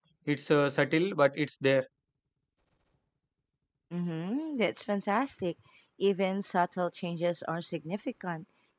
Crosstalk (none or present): none